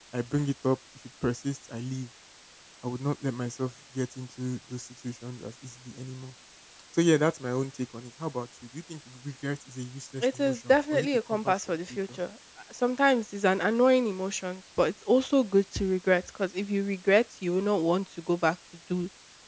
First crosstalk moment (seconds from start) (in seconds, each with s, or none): 10.2 s